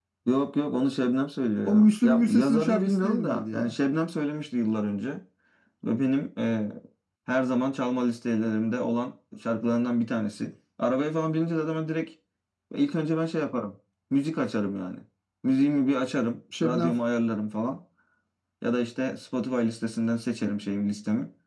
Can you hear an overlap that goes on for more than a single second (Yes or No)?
Yes